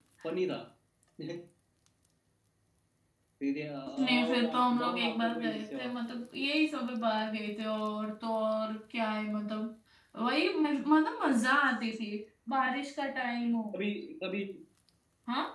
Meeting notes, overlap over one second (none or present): present